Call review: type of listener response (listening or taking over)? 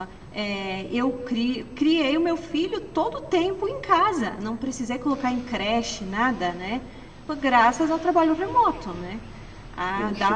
listening